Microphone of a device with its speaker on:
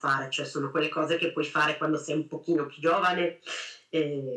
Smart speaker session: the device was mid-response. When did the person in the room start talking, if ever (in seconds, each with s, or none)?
none